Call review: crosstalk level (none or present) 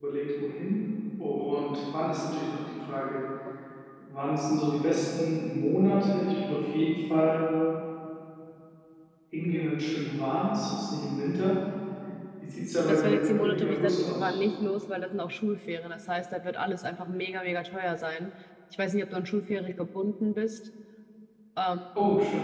present